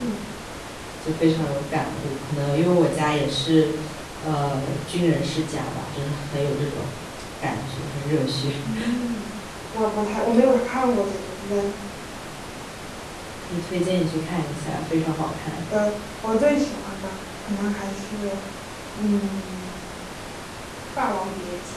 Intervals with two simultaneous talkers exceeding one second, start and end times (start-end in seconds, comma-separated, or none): none